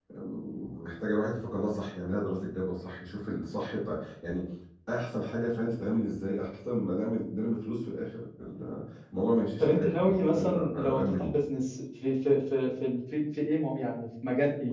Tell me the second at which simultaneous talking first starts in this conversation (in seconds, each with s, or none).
9.6 s